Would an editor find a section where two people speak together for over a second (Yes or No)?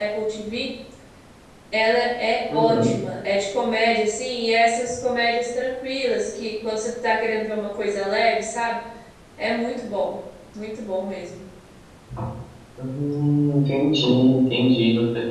No